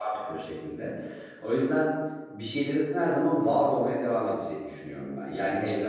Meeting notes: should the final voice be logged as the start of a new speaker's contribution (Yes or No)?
No